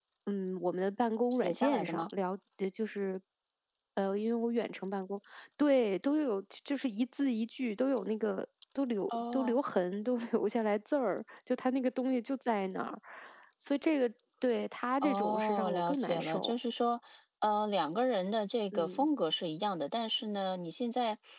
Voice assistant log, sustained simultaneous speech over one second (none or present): present